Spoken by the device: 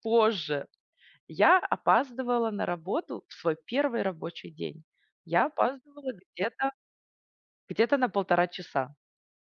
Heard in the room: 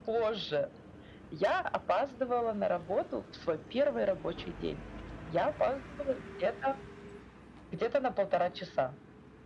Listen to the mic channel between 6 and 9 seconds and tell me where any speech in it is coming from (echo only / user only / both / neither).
echo only